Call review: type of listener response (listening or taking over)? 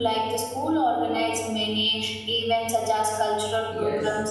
taking over